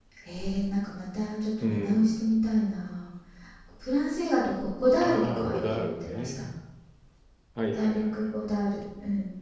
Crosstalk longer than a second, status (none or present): present